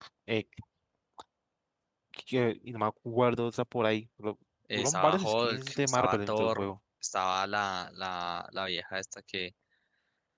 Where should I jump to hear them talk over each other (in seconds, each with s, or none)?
4.7 s